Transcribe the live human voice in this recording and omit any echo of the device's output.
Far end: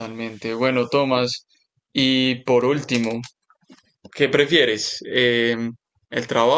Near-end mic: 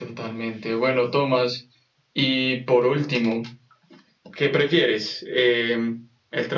none

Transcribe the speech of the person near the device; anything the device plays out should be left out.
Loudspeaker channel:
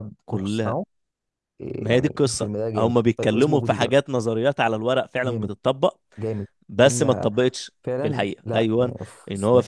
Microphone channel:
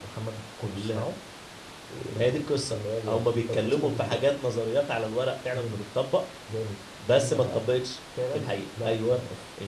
none

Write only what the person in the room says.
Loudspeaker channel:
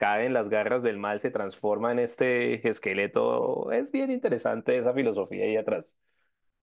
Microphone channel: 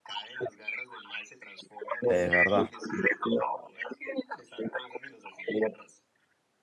Es verdad.

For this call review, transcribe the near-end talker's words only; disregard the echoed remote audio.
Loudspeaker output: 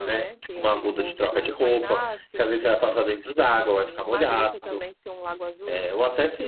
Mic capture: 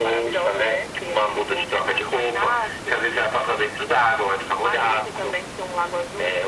none

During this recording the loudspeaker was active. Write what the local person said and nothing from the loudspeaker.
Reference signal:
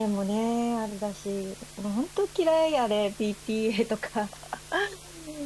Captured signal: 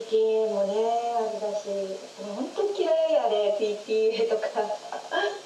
none

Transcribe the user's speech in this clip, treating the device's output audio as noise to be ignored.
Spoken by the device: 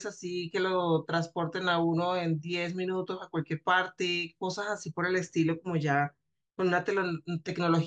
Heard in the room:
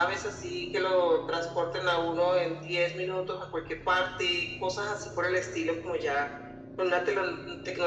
none

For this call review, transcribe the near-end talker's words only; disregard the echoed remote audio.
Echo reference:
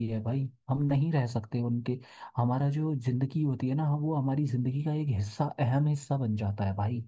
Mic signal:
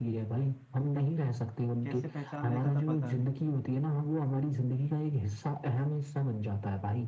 कैसे पहचान लेता था पता नहीं

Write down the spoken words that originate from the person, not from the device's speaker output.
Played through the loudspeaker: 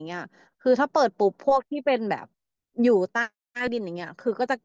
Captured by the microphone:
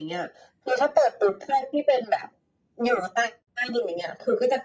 none

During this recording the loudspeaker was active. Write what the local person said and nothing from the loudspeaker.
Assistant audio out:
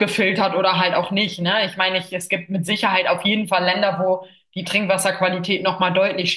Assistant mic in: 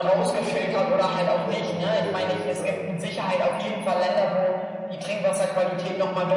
gerne mal ein paar Euro mehr bezahlt

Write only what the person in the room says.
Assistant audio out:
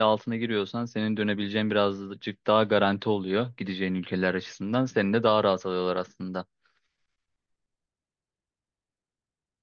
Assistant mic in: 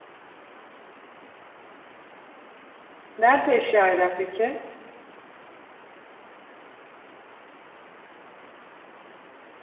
Nerede yaşıyor ailen peki?

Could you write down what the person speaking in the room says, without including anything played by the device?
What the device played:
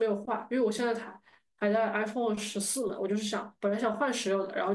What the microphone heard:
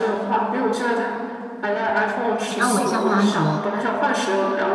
你让我一下换安卓，

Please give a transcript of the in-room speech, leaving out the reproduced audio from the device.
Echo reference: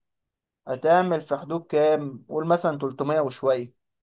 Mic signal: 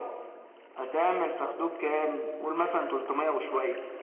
none

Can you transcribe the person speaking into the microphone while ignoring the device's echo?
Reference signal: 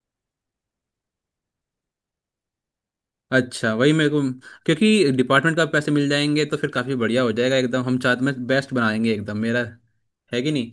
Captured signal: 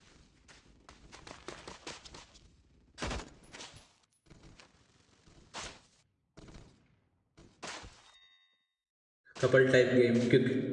कपल टाइप गेम क्यों

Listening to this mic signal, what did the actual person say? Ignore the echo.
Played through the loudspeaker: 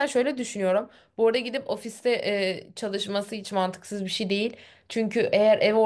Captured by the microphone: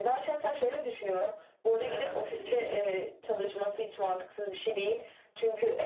Ee, peki

